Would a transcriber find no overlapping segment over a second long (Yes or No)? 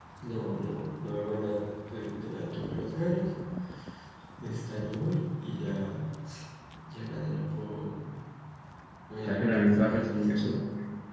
No